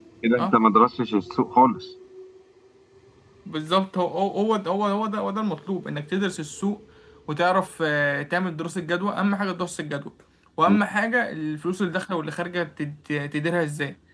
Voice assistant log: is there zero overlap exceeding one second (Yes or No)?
Yes